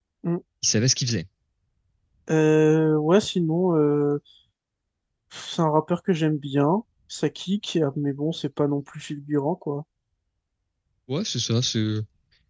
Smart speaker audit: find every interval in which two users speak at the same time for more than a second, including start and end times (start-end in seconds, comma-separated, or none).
none